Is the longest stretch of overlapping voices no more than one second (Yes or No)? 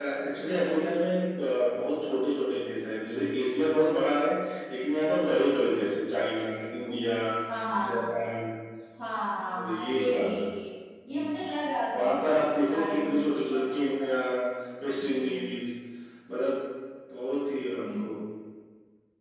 No